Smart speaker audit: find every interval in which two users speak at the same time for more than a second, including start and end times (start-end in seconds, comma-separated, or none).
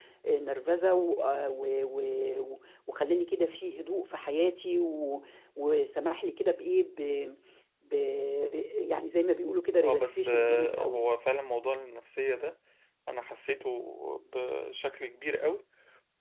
9.8-11.1